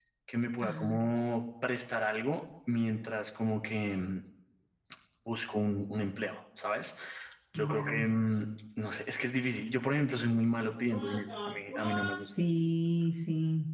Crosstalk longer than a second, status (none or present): present